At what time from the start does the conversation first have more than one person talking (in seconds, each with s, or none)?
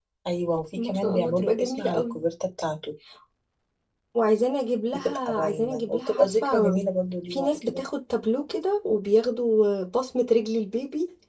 0.8 s